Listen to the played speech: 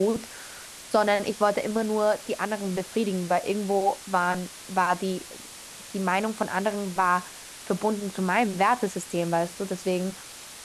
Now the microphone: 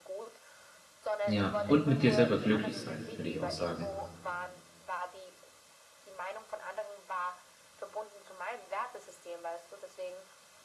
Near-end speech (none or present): present